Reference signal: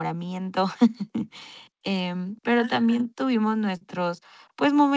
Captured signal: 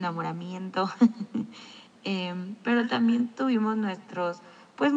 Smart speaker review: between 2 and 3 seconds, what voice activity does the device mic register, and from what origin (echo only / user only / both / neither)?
echo only